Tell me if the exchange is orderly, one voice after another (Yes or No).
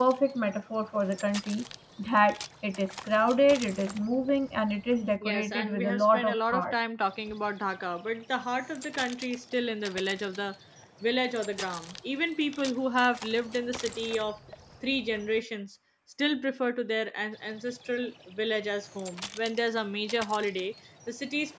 No